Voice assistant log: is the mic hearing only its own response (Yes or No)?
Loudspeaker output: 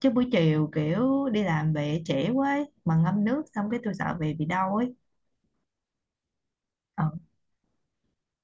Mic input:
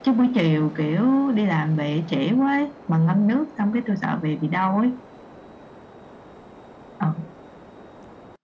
Yes